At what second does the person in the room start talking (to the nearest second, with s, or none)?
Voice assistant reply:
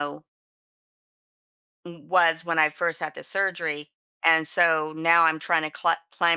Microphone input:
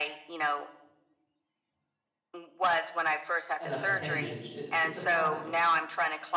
4 s